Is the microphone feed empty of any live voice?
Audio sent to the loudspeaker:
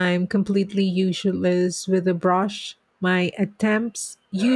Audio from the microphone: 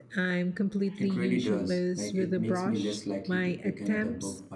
No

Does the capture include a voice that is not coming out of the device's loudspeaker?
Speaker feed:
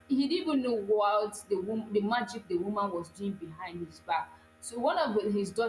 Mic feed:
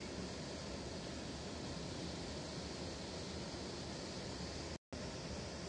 No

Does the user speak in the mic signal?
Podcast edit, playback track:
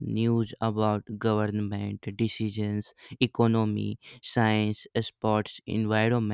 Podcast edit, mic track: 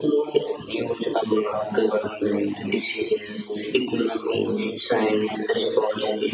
No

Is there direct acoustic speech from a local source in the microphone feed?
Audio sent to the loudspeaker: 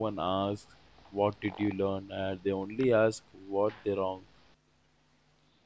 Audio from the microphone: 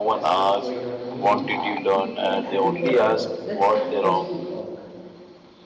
Yes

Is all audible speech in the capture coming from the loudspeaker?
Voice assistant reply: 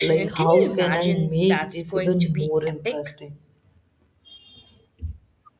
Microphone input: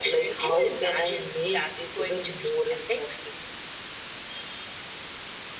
Yes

